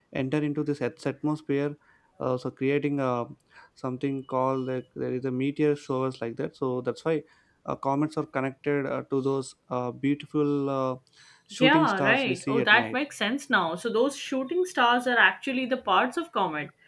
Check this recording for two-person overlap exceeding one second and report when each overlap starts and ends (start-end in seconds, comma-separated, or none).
11.6-13.0